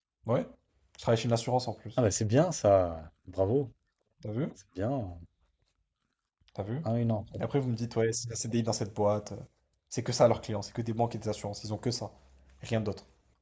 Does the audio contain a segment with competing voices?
No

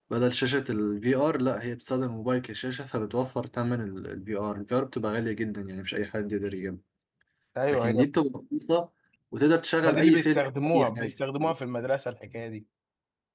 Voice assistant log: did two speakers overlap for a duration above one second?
Yes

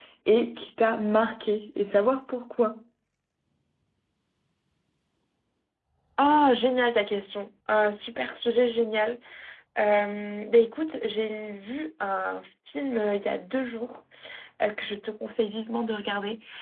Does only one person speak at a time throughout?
Yes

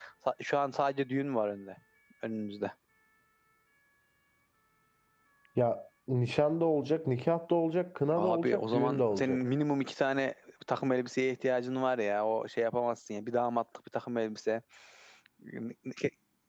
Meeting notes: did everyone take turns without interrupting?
No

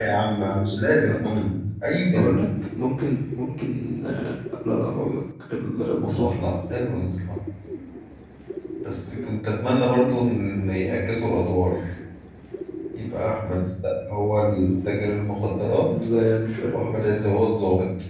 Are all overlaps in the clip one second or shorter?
Yes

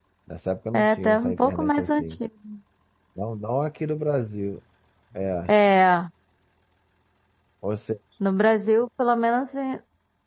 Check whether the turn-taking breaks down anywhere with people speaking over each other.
Yes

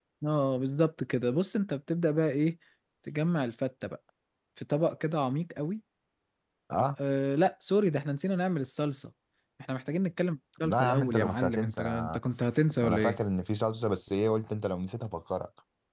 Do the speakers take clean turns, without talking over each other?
No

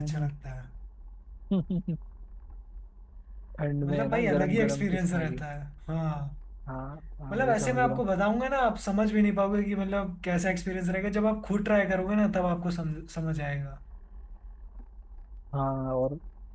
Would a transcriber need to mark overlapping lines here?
Yes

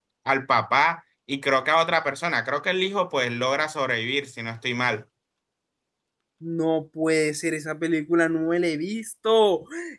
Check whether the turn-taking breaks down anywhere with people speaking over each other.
No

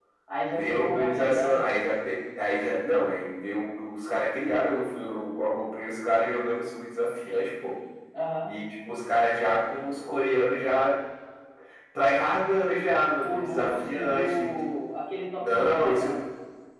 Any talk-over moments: Yes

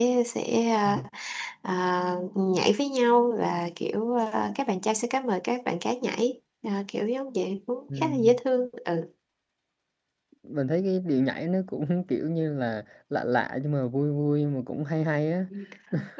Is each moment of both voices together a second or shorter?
Yes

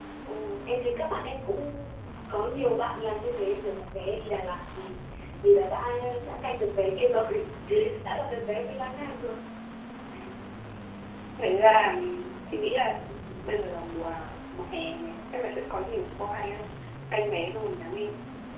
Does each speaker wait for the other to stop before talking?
Yes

